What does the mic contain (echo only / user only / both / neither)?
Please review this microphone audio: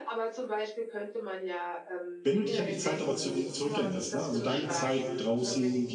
both